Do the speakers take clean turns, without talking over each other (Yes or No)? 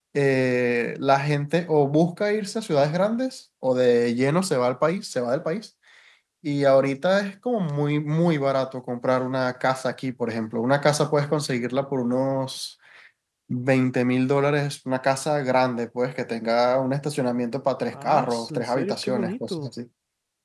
No